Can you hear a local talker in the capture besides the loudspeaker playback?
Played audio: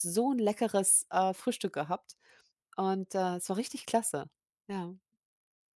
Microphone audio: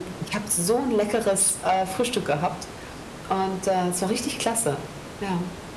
No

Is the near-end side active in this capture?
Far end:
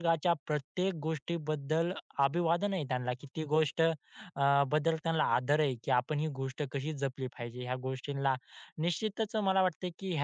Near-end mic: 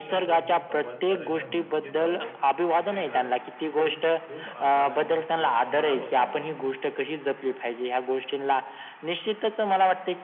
Yes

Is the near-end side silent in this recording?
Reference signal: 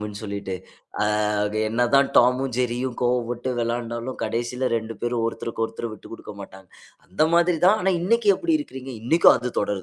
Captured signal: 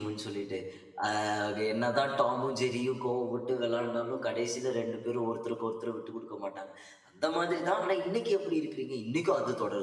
Yes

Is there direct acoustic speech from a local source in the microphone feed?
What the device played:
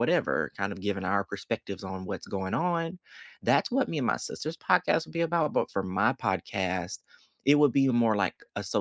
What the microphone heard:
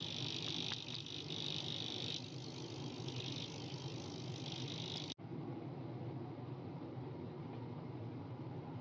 No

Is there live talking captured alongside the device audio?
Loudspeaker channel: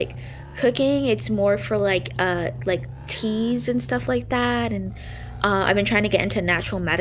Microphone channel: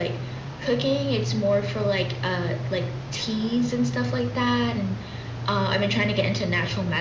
No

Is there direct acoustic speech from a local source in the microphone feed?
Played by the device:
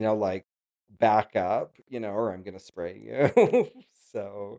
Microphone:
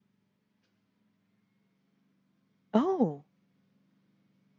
Yes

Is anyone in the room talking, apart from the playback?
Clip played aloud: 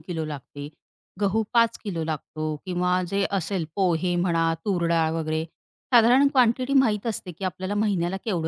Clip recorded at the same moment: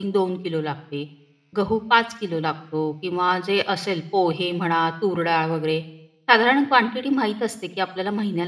No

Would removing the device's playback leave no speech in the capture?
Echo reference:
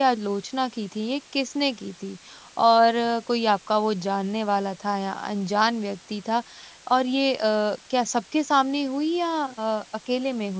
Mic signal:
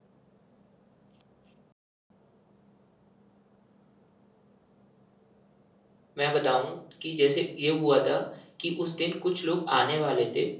No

